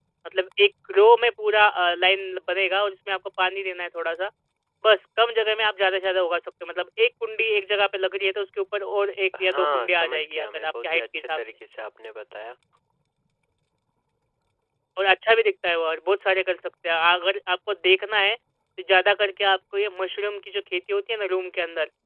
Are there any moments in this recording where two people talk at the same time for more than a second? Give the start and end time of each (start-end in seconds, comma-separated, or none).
9.4-11.4